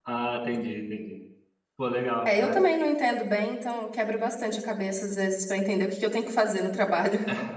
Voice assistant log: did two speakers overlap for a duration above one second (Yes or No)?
No